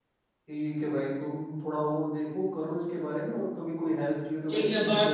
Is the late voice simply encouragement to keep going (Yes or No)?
No